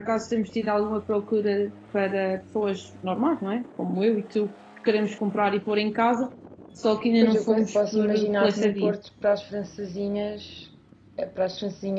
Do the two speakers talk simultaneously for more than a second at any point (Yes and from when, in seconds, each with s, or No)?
Yes, from 7.2 s